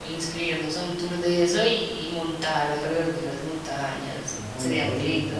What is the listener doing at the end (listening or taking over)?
taking over